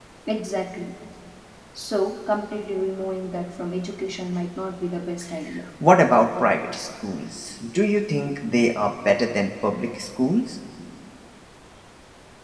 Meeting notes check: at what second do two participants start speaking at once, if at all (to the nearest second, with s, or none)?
none